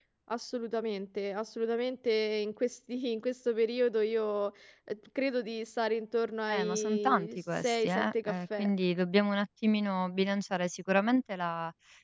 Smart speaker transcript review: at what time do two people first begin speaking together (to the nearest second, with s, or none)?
6 s